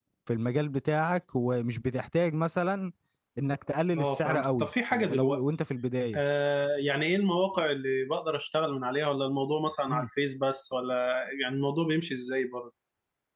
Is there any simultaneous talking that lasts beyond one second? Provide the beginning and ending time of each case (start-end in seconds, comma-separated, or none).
4.0-5.4